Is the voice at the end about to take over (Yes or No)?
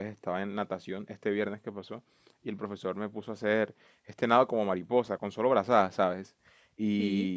No